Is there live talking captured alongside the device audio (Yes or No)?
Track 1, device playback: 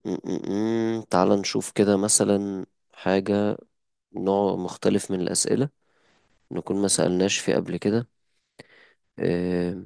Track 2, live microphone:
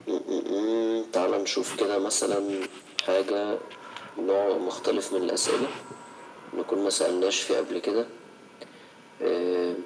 No